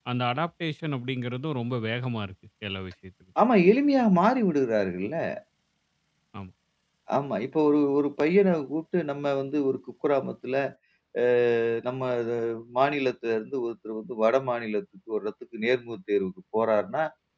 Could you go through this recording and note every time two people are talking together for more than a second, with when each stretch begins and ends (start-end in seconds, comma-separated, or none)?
none